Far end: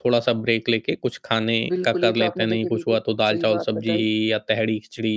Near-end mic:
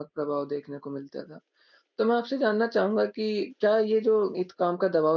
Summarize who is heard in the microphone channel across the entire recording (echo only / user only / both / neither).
user only